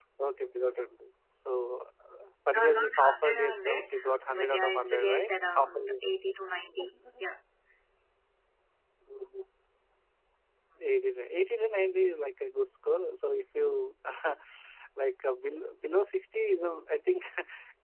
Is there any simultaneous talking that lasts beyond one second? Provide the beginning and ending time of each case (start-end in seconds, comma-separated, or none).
2.5-3.9, 4.3-5.7